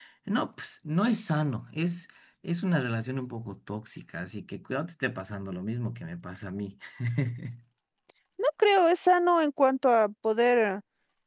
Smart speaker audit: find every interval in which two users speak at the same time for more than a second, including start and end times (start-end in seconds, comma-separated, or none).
none